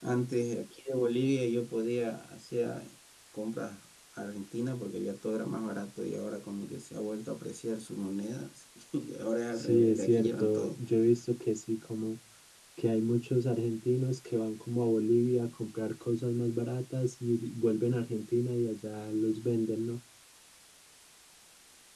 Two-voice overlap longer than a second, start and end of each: 9.5-10.8

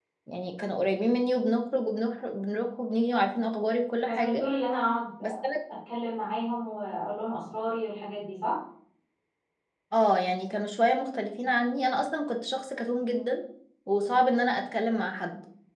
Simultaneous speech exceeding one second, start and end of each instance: none

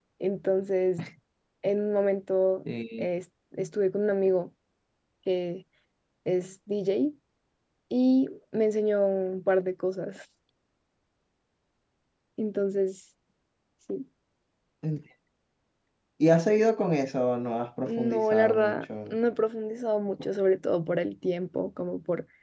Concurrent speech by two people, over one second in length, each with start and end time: 17.9-19.2

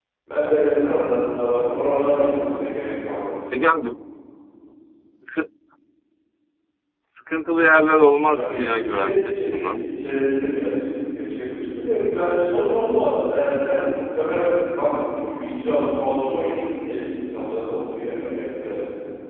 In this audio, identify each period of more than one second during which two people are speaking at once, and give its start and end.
8.3-9.9

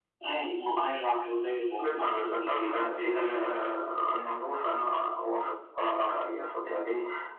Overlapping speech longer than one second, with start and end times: 1.8-3.6

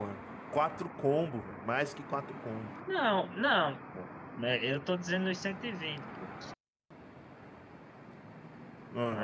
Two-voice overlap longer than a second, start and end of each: none

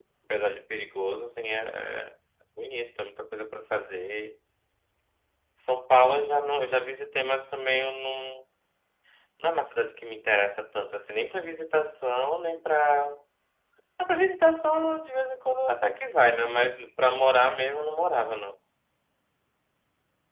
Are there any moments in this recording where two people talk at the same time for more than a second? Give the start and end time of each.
none

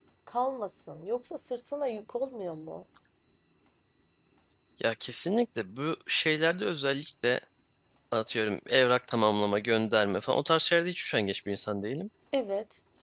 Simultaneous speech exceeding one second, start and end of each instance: none

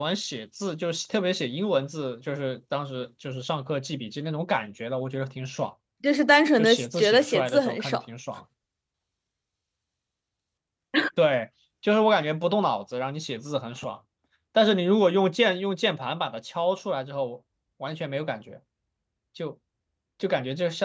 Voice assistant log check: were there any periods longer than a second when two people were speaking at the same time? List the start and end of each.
6.5-8.0

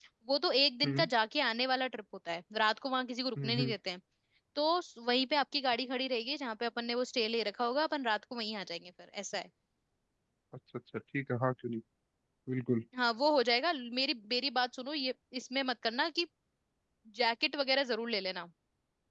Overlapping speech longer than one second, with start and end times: none

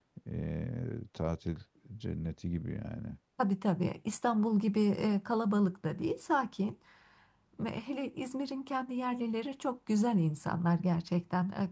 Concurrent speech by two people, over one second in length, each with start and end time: none

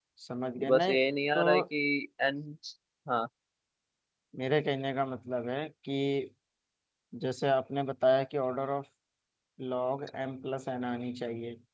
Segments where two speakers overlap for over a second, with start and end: none

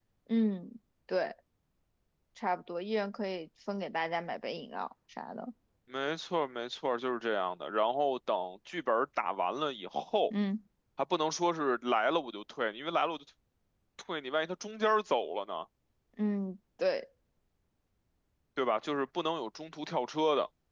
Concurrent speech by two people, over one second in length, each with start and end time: none

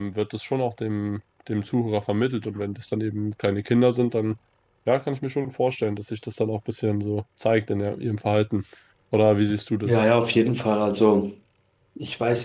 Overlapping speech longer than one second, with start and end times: none

